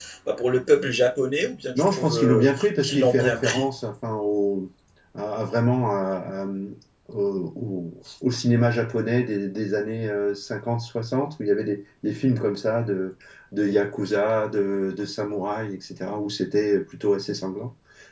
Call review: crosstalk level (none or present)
present